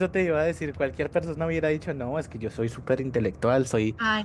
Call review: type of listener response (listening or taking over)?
listening